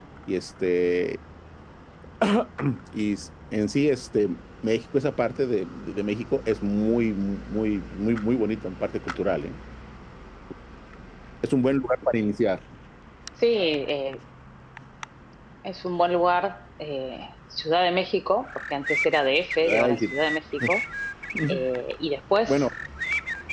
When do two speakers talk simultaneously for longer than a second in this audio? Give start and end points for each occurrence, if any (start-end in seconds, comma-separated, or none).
none